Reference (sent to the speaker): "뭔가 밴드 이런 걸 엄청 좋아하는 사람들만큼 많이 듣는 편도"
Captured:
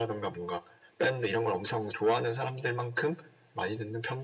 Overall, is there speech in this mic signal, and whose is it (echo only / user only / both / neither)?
echo only